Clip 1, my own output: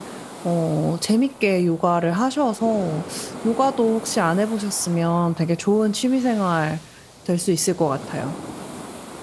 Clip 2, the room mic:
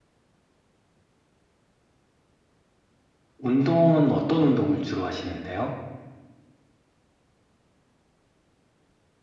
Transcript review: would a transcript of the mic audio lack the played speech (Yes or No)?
Yes